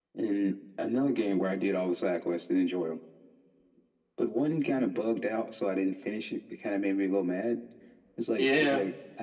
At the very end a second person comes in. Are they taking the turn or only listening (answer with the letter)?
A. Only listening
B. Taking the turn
A